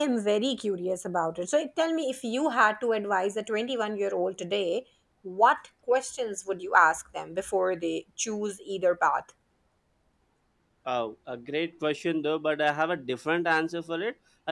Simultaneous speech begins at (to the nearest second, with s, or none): none